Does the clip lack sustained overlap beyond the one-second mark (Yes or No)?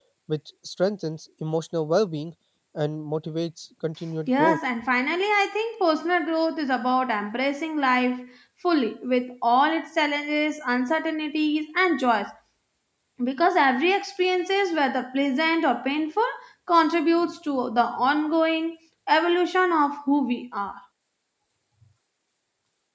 Yes